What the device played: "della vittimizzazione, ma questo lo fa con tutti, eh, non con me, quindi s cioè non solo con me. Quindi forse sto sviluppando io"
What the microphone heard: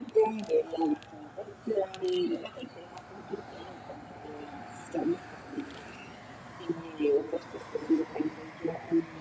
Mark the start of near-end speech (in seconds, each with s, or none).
none